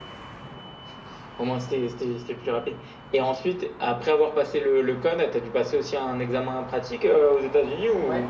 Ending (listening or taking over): taking over